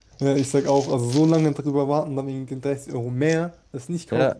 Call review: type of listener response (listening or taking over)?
taking over